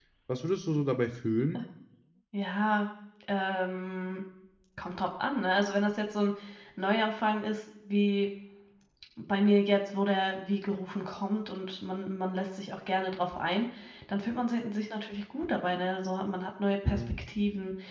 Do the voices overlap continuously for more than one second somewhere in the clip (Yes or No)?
No